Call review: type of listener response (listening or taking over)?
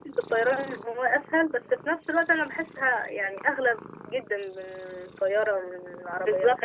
taking over